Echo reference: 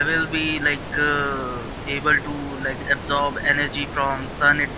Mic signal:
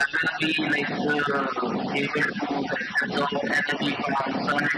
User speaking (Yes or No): No